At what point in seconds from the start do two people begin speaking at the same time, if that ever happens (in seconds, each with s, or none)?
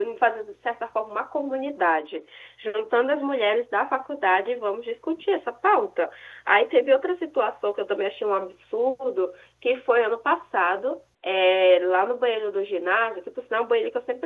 none